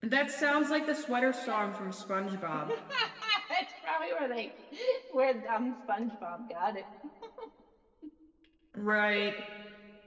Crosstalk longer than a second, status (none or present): none